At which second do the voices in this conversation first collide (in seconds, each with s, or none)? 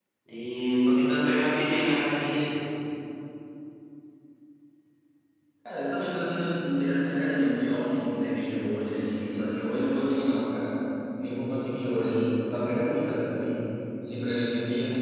none